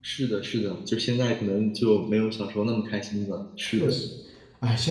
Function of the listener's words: taking over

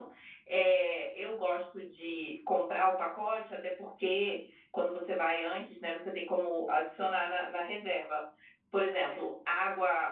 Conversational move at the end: listening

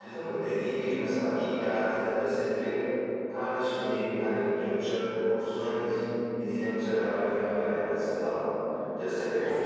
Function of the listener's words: listening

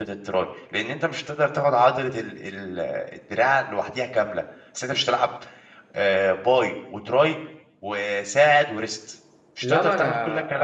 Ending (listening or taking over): taking over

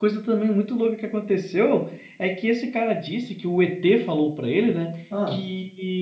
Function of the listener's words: listening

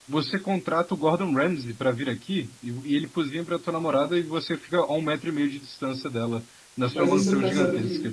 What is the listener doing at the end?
taking over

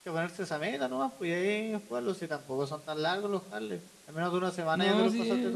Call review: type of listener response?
taking over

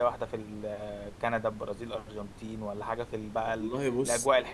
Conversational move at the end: listening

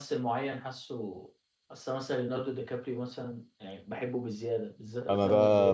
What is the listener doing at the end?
taking over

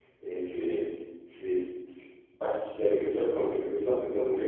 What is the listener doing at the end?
listening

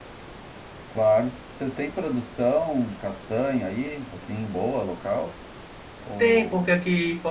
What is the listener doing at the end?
taking over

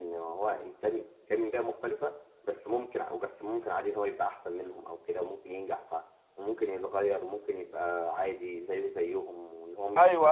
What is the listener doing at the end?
taking over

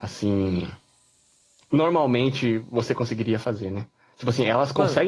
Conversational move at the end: listening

